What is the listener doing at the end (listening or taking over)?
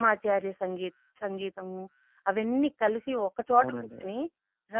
listening